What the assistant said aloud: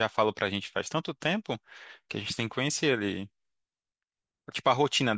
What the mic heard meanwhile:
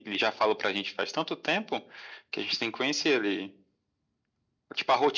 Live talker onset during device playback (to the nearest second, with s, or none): none